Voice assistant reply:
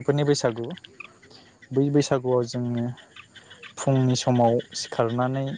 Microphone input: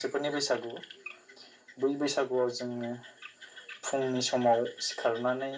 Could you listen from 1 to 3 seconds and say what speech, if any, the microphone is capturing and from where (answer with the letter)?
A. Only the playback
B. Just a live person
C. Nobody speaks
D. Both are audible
A